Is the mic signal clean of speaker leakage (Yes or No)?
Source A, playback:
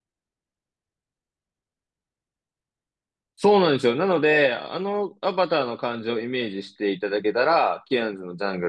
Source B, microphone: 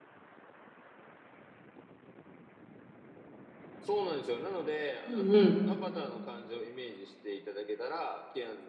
No